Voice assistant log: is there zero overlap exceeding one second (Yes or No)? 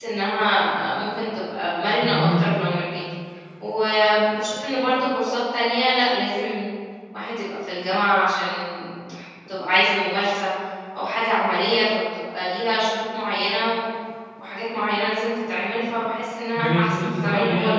No